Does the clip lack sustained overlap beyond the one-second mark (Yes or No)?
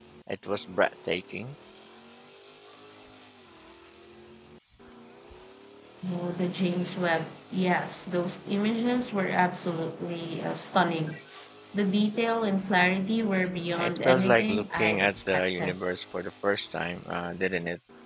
No